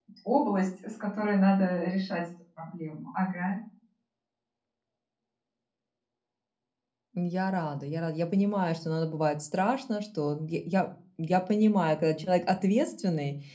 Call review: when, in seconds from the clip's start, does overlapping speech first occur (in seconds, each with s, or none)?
none